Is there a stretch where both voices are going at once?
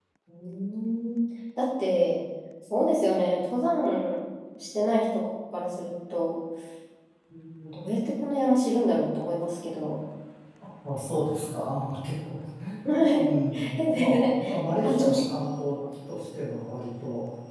Yes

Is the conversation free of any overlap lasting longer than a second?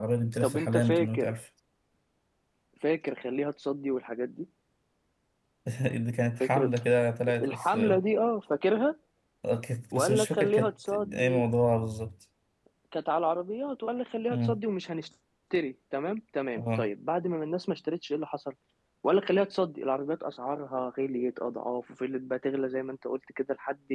No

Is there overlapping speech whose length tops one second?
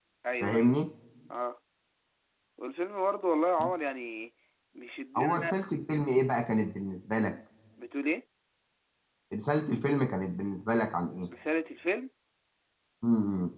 No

